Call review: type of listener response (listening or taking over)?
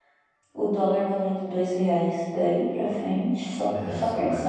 taking over